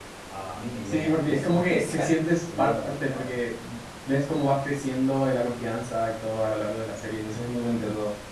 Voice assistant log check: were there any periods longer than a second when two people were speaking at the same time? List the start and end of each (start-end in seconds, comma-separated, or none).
0.8-3.4